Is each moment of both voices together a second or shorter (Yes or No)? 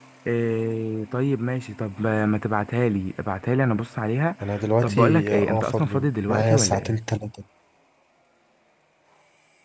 No